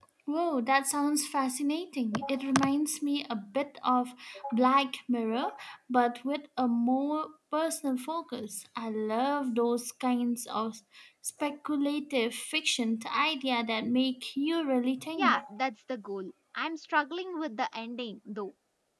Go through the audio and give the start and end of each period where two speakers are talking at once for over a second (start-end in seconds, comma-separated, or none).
none